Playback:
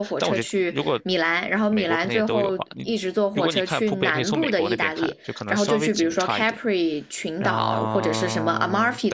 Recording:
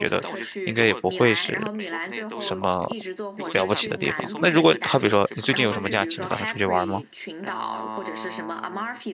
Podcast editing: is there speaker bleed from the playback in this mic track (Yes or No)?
Yes